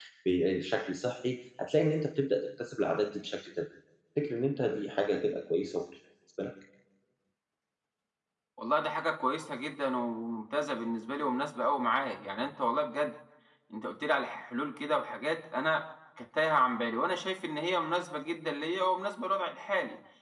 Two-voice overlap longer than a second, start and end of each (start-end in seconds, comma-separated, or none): none